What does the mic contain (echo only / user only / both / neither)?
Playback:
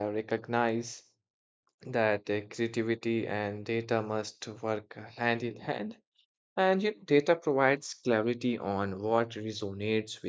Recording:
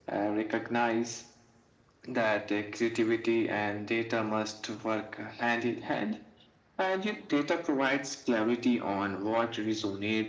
echo only